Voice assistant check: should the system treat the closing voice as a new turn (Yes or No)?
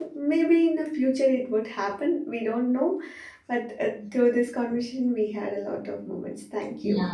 Yes